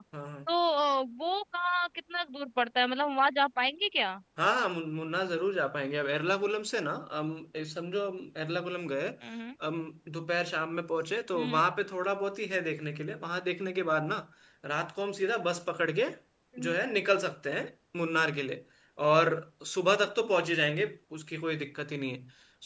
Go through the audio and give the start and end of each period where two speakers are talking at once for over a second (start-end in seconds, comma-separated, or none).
none